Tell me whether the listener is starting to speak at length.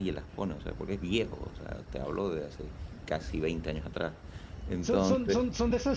Yes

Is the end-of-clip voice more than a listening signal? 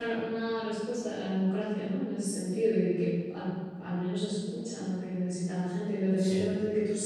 No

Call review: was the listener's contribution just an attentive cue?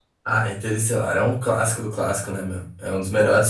Yes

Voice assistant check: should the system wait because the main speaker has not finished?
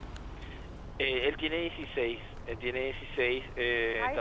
Yes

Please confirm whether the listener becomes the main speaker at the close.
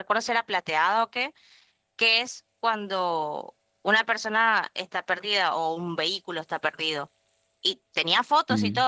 No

